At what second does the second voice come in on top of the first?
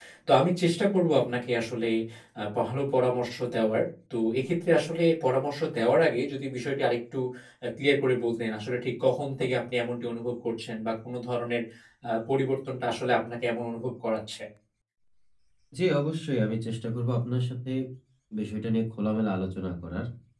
none

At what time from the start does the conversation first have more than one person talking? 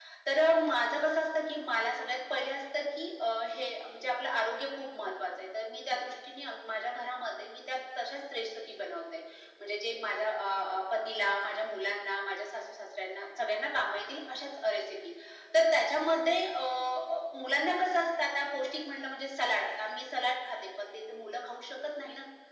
none

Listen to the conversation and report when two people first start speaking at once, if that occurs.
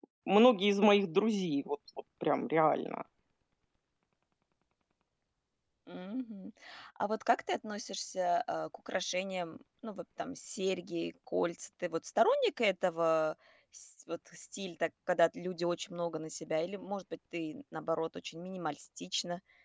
none

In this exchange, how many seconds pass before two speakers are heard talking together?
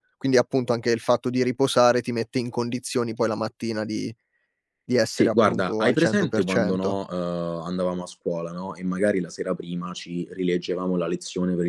5.2 s

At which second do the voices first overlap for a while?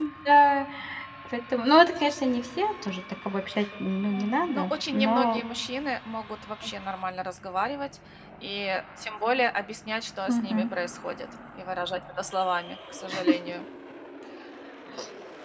4.1 s

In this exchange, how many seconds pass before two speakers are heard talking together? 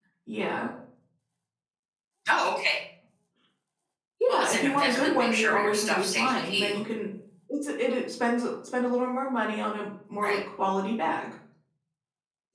4.3 s

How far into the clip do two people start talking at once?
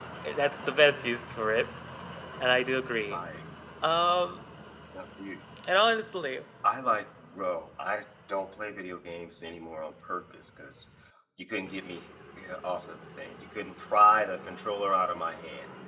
none

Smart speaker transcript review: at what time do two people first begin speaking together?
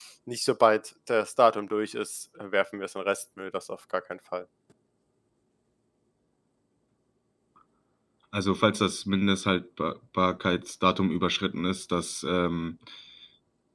none

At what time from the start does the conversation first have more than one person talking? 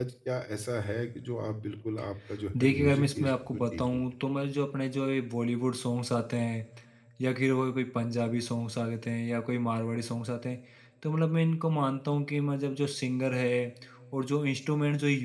2.5 s

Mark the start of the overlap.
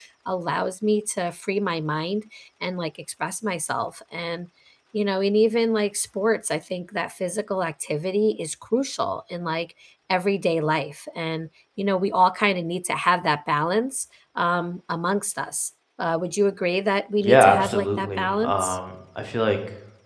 17.2 s

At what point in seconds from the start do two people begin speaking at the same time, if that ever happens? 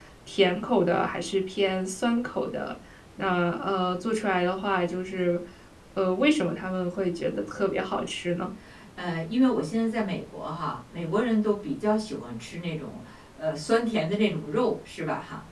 none

